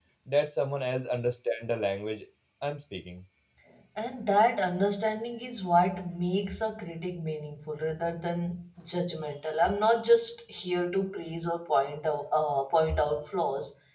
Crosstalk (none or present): none